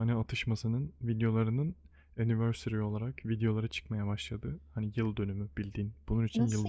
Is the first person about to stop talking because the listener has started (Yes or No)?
Yes